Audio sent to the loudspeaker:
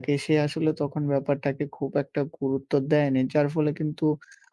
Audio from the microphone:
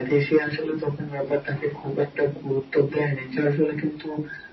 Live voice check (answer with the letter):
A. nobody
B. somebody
A